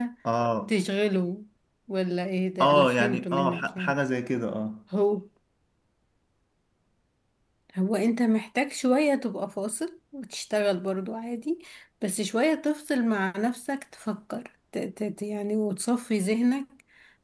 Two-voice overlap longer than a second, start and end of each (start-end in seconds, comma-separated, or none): 2.6-4.0